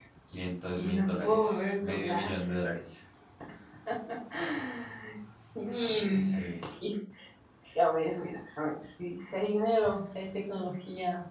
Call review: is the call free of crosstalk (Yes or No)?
No